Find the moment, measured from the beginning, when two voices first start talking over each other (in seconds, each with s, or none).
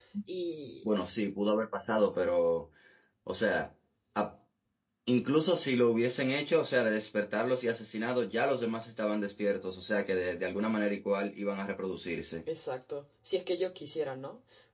none